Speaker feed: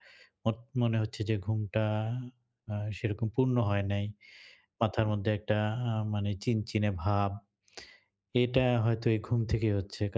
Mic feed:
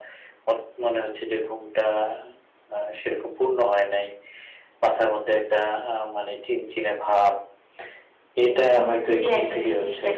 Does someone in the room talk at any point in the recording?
Yes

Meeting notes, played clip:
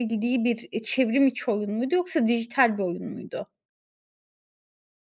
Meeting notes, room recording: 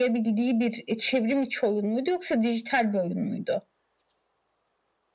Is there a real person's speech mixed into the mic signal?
No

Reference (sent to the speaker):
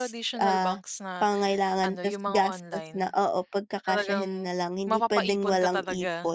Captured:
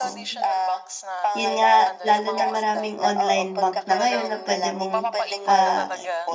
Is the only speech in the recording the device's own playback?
No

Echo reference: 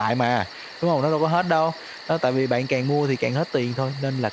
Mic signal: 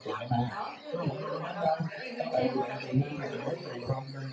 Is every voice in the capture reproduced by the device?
No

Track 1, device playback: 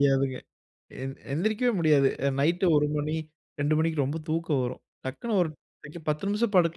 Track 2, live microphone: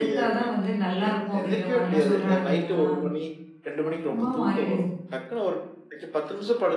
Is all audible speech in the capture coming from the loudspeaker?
No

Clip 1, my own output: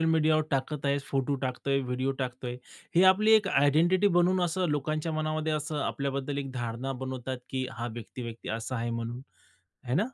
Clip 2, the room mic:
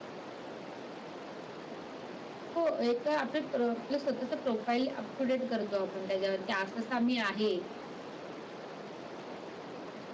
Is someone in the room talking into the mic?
Yes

